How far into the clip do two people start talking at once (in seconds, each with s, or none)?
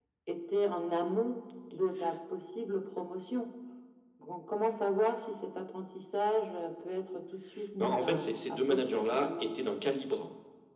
7.8 s